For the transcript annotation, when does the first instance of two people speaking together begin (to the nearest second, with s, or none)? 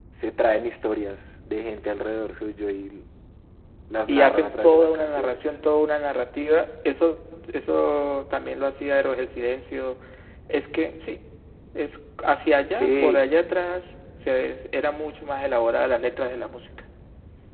4 s